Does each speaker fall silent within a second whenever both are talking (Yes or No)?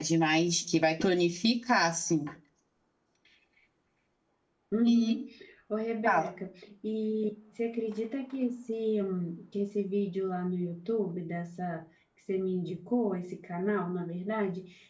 Yes